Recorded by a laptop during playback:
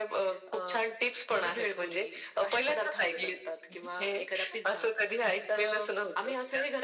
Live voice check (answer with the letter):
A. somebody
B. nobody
B